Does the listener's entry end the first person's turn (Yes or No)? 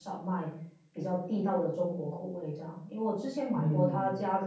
No